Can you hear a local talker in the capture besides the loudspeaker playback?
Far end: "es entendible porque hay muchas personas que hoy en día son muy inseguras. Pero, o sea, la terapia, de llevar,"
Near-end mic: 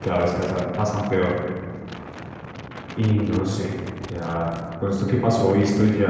Yes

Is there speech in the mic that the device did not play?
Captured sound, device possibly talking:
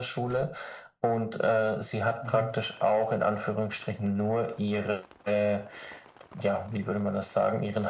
Yes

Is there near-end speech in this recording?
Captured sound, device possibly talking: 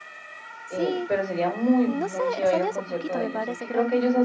Yes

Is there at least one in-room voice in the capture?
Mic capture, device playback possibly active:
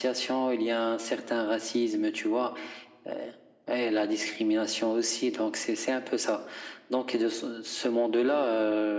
No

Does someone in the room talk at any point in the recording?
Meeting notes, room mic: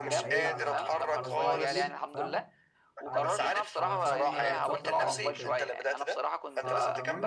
Yes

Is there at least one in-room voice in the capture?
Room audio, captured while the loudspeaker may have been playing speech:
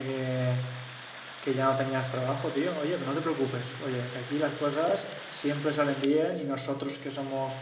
Yes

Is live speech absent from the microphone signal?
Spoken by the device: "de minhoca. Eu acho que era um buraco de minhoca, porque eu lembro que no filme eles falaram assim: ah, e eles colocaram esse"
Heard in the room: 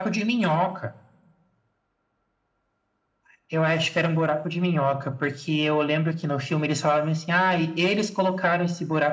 Yes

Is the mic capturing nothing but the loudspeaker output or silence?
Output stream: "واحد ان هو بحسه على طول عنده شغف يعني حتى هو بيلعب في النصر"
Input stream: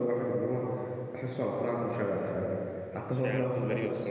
No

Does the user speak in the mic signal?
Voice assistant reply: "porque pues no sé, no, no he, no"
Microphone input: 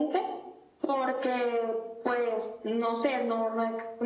No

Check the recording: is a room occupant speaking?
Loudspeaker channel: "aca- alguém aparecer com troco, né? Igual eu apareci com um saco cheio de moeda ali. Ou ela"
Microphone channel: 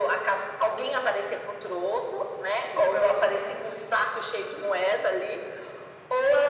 No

